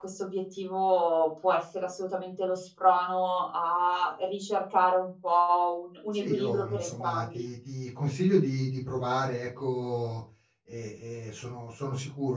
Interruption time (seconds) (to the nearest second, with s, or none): 6 s